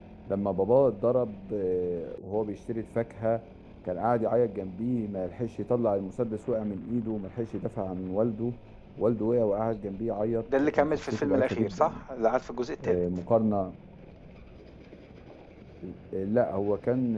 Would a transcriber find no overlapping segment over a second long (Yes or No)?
No